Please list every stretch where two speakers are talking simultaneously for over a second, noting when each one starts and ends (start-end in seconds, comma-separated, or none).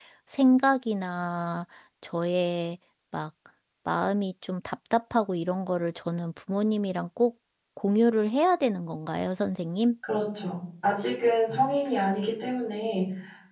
none